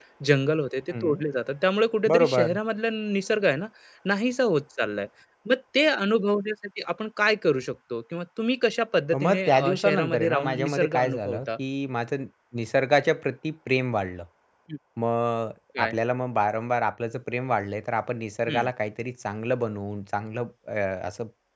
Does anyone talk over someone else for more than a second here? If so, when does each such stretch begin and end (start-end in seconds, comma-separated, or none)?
9.2-11.4